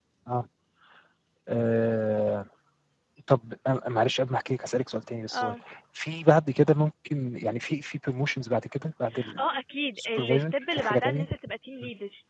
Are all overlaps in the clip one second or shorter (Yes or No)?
No